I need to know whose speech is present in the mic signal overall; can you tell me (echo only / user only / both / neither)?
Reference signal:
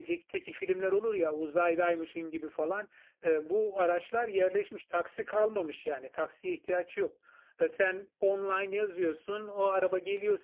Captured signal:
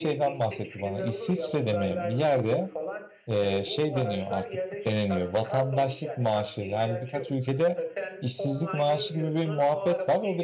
both